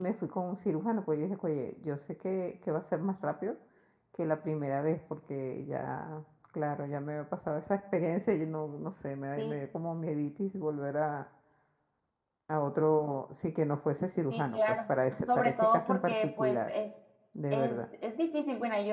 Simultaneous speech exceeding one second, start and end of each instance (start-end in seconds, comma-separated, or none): 15.4-16.7